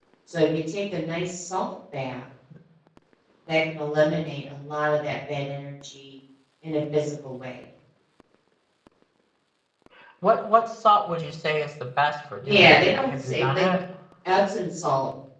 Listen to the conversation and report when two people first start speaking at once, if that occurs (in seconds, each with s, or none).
12.4 s